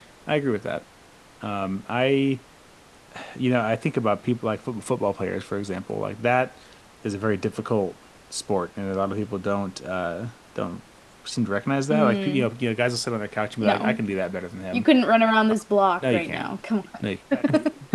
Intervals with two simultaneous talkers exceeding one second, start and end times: none

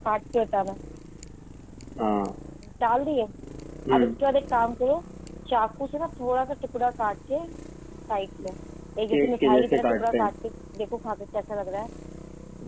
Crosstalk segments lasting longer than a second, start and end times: 9.1-10.3

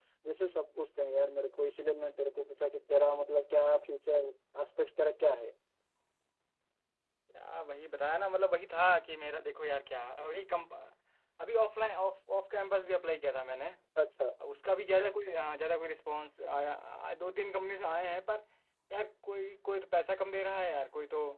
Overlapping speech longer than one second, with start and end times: none

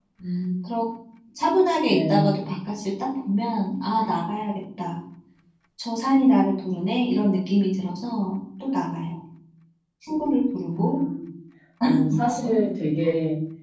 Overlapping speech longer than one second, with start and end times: none

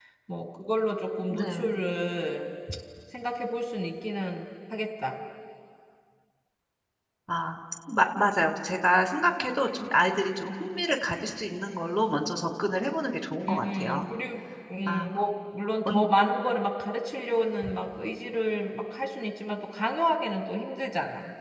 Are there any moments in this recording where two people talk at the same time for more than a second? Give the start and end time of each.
none

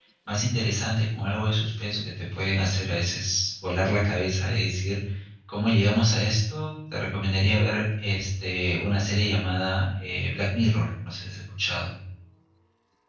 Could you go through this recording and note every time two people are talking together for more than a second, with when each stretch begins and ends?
none

